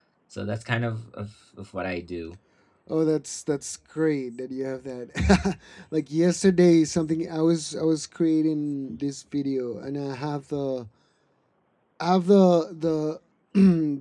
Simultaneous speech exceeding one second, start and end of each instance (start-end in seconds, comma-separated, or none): none